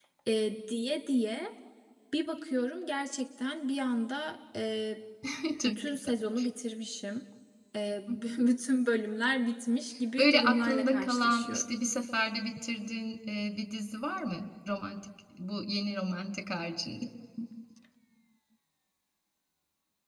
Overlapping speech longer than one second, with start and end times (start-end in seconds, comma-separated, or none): 10.2-11.6